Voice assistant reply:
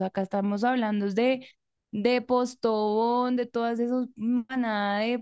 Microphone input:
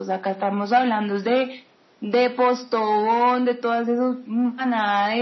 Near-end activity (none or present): none